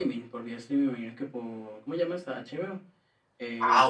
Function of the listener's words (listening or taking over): taking over